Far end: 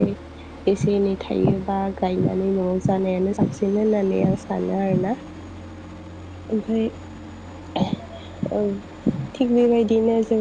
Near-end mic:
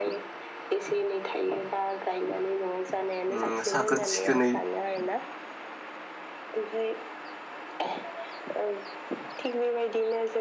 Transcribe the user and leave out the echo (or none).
ओम साखोन सिखोनै